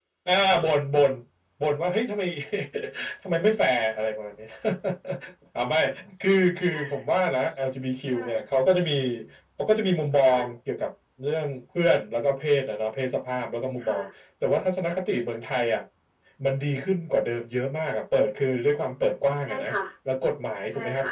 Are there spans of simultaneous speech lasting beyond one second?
No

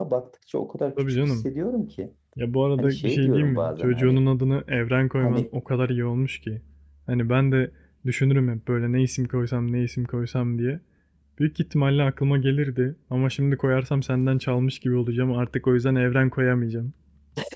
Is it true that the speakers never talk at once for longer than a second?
No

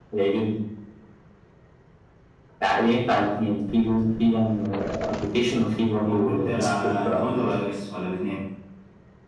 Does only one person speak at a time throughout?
No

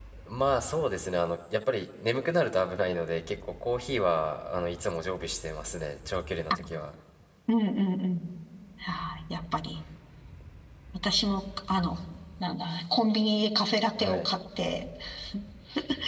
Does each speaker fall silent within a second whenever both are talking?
Yes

